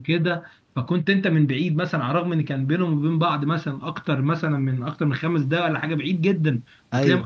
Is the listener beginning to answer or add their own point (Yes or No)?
No